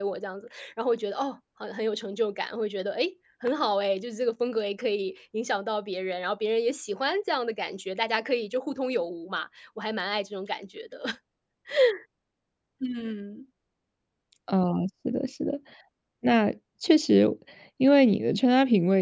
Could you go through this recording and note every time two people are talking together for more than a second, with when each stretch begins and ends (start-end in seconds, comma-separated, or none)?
none